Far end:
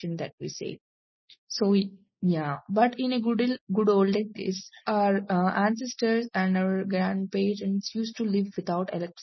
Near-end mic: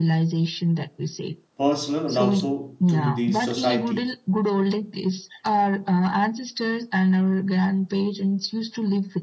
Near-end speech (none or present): present